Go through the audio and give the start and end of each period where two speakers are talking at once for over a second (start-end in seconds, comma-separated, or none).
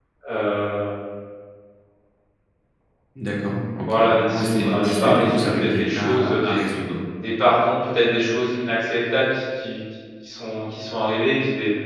4.3-6.6